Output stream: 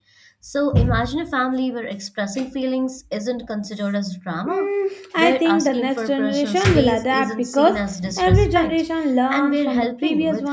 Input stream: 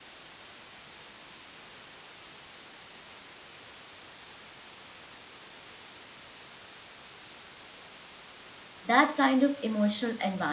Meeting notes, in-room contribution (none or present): present